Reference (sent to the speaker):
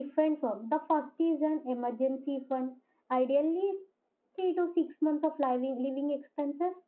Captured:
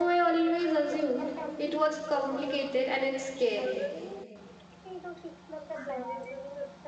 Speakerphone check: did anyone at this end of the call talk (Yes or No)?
Yes